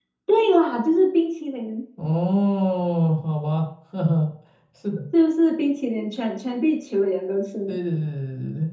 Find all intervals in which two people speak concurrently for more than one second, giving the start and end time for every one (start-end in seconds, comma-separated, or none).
none